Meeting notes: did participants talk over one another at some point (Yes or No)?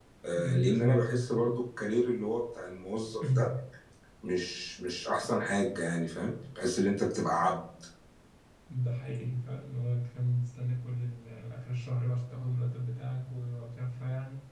Yes